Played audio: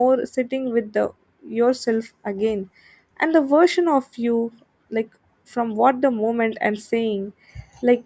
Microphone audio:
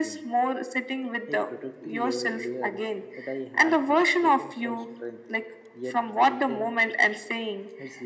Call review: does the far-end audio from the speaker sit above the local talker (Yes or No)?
Yes